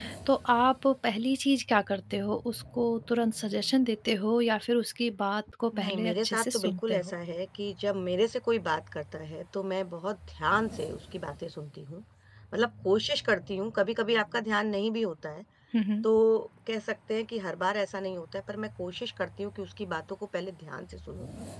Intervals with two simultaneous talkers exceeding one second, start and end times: 5.8-7.1

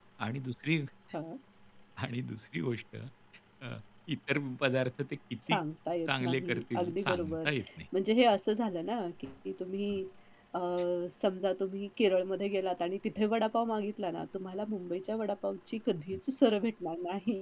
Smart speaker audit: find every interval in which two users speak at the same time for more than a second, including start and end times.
6.1-7.5

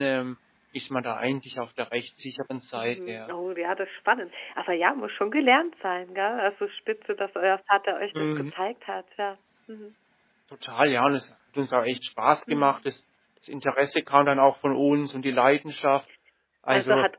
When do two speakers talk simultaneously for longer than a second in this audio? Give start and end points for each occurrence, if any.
none

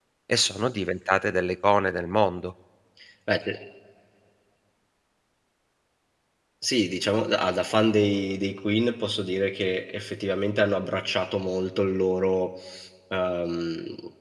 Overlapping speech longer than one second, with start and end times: none

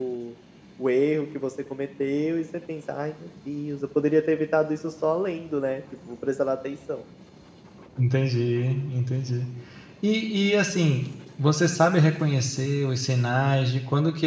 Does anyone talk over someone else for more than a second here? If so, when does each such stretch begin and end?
none

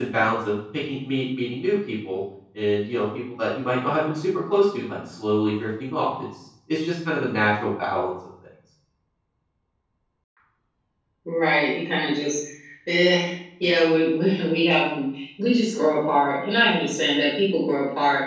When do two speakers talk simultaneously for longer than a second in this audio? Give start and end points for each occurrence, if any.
none

